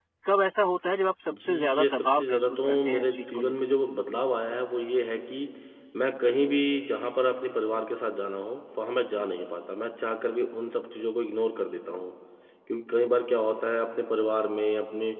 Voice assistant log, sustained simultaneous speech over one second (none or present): present